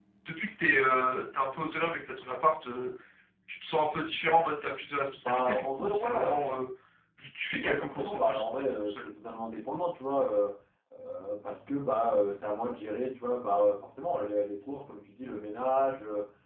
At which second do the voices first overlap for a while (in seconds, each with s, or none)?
5.2 s